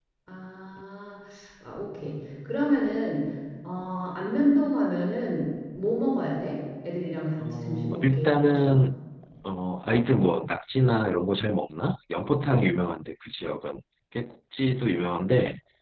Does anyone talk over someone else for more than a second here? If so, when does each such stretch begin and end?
7.4-8.8

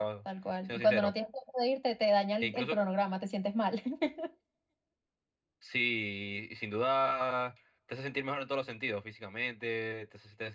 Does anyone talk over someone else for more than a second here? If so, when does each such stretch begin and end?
none

